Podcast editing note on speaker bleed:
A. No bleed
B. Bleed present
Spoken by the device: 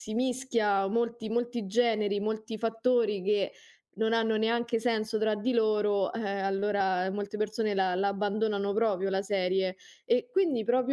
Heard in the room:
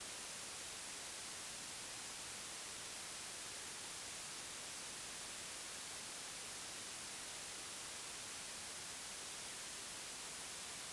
A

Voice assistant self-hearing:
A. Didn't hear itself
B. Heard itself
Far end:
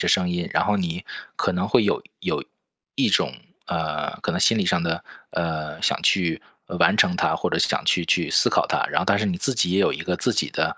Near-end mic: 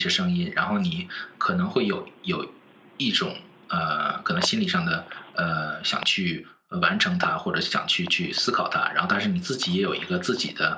B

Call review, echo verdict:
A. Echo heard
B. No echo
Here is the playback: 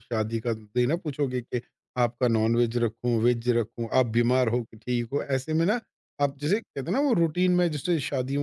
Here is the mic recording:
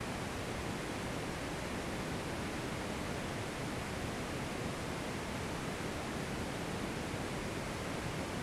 B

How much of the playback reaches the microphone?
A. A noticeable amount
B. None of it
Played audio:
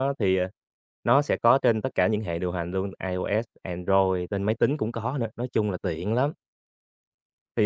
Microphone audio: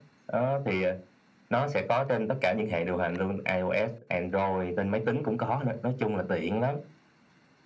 A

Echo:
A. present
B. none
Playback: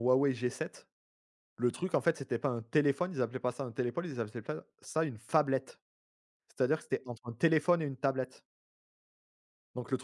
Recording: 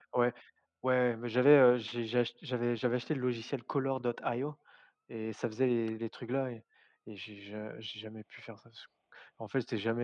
B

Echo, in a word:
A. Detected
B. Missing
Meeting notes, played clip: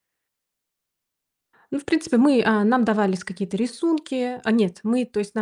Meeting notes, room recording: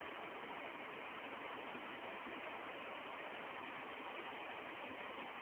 B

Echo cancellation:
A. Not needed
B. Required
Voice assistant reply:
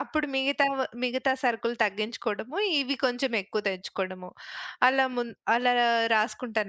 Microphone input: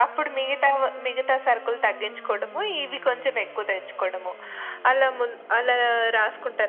B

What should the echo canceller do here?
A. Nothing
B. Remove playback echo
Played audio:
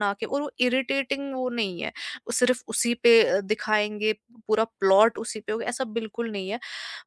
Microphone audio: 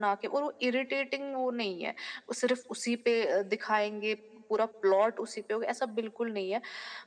B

